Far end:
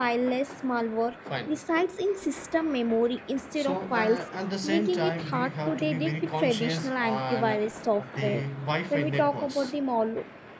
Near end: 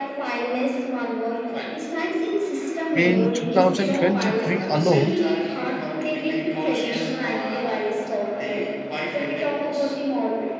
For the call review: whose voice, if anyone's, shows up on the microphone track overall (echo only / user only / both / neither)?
both